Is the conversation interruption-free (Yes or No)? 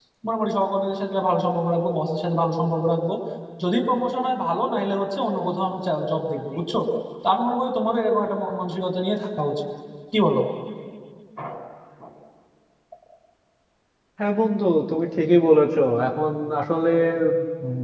Yes